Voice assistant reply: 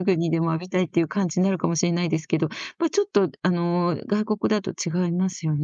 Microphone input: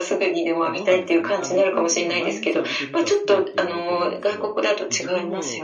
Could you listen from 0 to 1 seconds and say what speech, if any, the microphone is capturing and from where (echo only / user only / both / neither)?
both